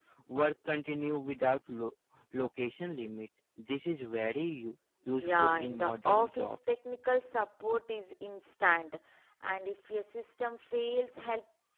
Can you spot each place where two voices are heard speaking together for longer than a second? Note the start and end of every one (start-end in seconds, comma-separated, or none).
5.2-6.6